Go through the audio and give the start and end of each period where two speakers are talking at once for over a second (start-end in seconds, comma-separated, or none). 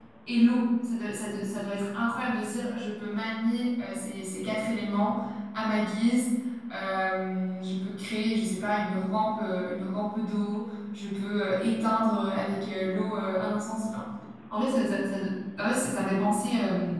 none